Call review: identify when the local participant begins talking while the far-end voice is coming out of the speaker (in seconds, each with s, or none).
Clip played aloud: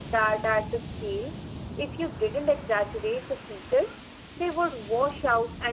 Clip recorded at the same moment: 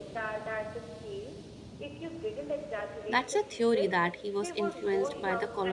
3.1 s